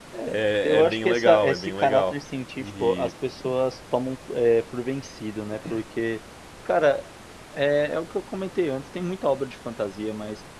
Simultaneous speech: Yes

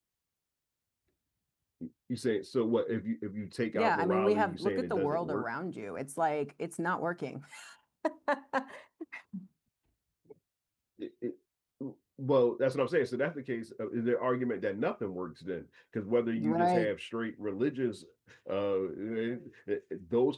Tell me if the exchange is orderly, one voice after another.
No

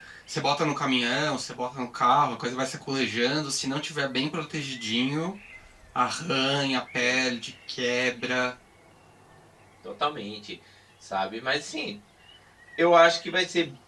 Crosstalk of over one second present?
No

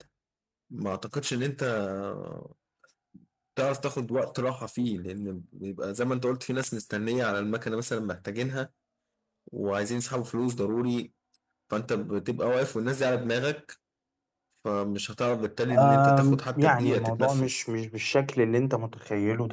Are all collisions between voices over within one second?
No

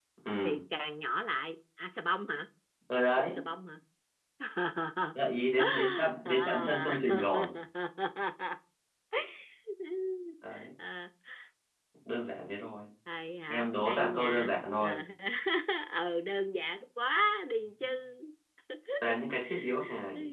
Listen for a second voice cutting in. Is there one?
Yes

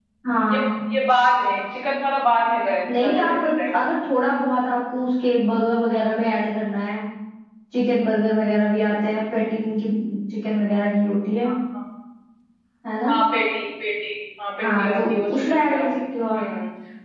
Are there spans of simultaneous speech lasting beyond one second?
Yes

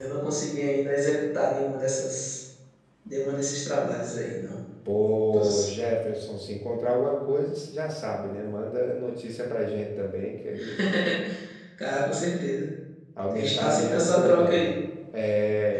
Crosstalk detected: Yes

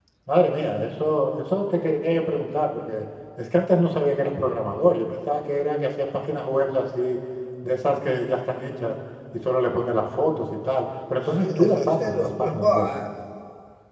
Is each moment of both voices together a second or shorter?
No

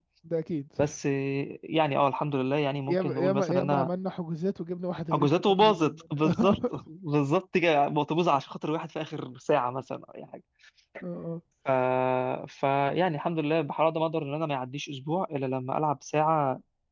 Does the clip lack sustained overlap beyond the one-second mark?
No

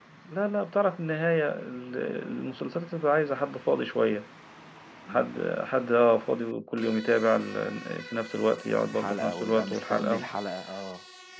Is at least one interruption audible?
Yes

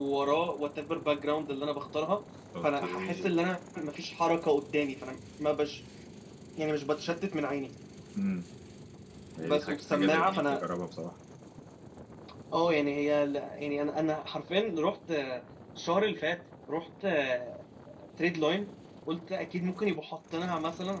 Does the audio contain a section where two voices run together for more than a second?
Yes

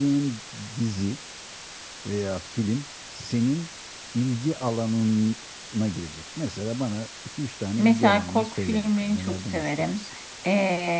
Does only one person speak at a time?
No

